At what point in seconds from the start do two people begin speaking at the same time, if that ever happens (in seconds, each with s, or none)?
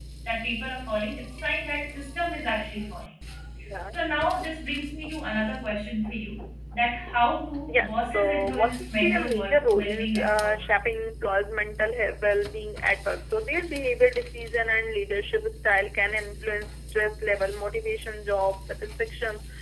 7.7 s